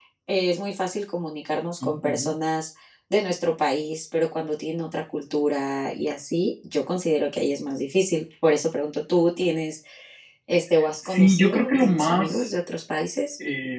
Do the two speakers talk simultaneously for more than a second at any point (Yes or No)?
Yes